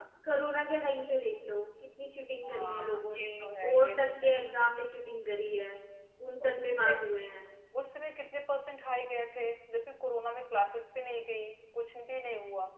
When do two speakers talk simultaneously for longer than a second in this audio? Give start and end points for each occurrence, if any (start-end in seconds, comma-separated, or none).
2.5-4.3